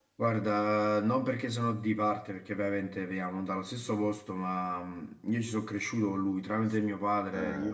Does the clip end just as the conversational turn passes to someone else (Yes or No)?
No